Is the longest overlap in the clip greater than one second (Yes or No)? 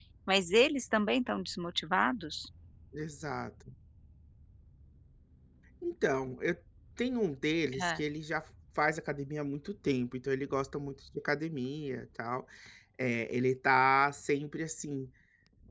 No